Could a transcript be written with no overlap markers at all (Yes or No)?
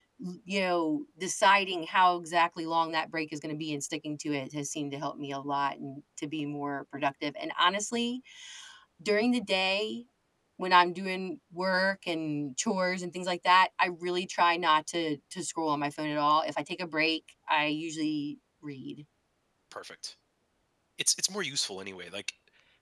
Yes